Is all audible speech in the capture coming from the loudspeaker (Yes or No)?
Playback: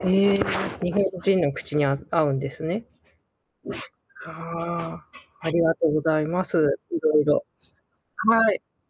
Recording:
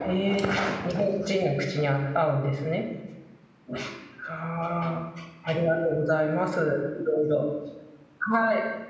Yes